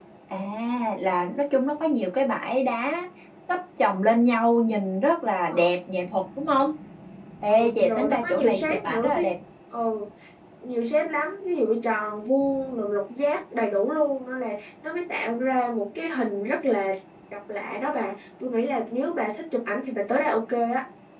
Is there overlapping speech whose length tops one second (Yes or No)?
Yes